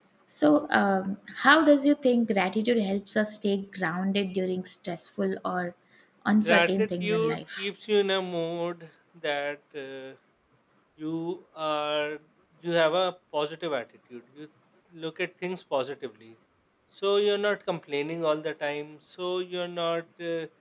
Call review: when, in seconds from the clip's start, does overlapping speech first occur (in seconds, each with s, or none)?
6.4 s